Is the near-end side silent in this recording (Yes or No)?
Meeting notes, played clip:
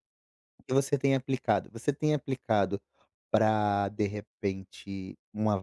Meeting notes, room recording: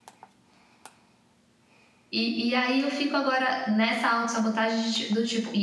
No